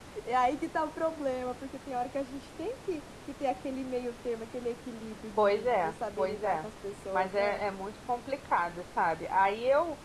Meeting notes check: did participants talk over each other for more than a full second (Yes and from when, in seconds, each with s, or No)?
Yes, from 5.4 s